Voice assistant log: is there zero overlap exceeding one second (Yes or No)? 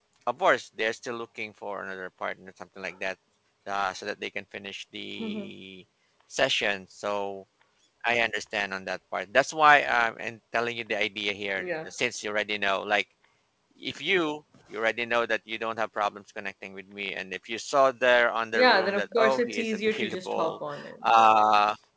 No